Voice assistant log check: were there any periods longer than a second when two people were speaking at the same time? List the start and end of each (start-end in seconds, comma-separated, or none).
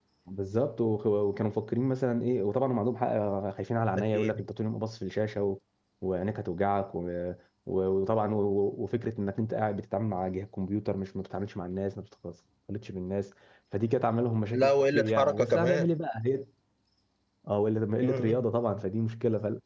14.5-15.9